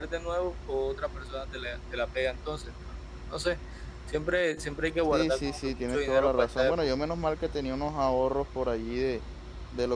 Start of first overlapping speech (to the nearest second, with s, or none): 5 s